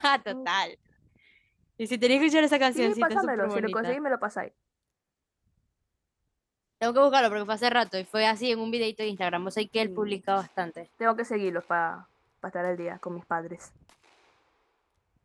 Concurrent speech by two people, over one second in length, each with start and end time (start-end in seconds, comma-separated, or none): 2.8-4.0